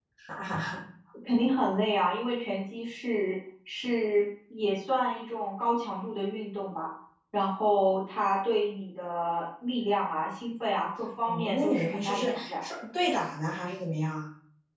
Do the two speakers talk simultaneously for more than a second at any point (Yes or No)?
Yes